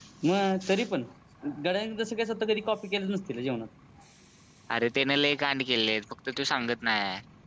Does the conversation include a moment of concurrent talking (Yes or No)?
No